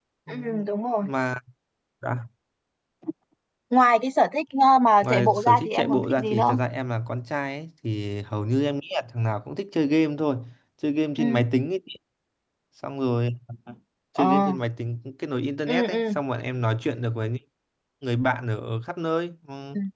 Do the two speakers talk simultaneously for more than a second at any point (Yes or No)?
Yes